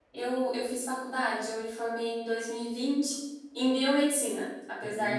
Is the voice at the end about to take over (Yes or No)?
No